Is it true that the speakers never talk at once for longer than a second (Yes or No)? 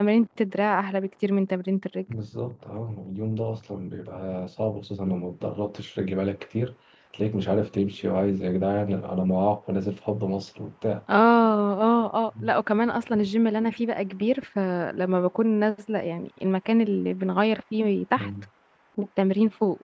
Yes